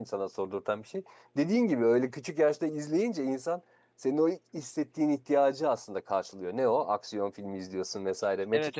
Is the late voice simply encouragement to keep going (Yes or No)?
No